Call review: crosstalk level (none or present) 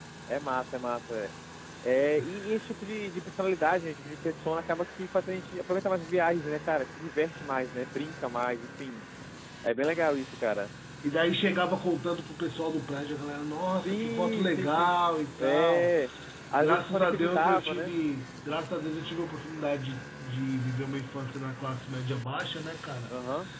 present